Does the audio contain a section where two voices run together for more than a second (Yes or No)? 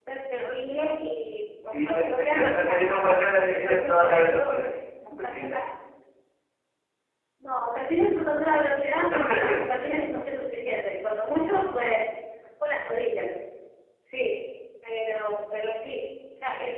Yes